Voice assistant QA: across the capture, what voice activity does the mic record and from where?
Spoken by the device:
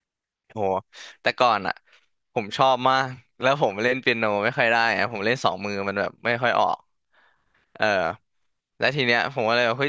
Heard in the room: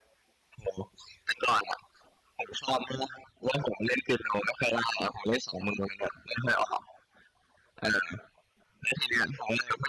echo only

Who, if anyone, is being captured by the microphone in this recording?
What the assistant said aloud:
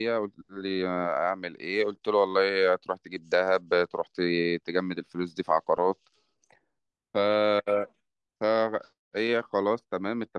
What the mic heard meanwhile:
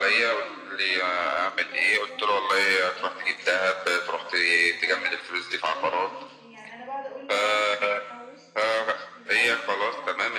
both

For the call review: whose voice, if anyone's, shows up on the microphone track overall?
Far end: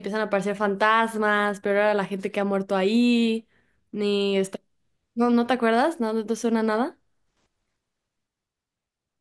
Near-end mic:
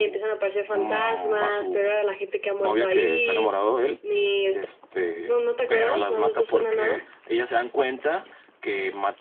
both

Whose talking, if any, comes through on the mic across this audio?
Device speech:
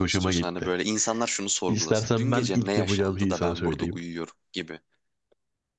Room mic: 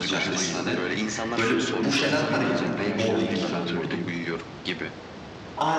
both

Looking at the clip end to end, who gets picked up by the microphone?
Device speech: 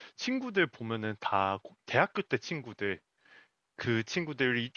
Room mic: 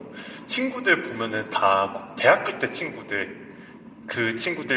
echo only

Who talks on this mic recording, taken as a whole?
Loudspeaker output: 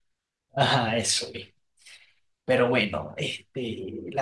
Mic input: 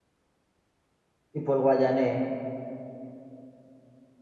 user only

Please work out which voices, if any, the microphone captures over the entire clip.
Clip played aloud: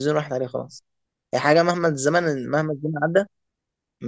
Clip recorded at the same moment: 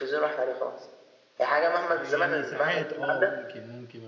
both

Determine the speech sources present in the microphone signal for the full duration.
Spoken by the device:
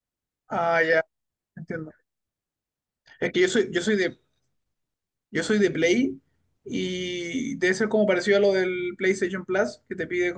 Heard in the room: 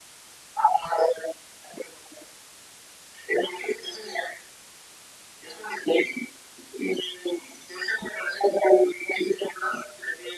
echo only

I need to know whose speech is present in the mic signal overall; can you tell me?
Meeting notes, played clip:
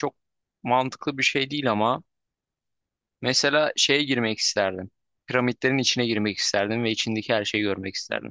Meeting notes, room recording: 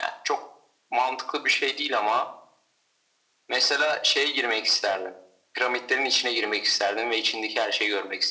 echo only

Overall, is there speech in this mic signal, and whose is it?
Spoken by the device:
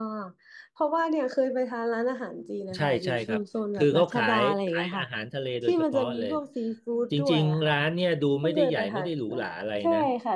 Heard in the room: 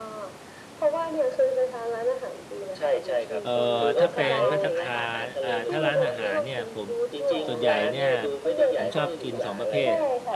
both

